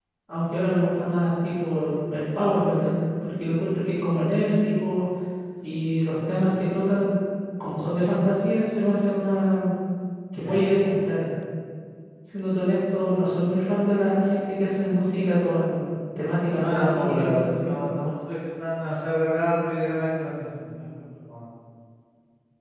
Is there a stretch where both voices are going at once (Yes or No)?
Yes